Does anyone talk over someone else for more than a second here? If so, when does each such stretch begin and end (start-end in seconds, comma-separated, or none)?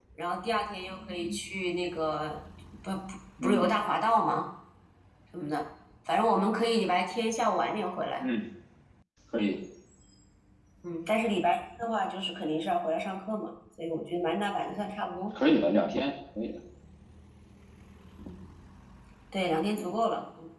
none